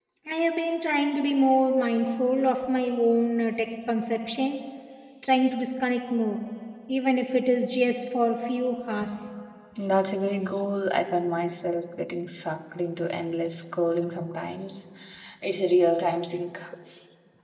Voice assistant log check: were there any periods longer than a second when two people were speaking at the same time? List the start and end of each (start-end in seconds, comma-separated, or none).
none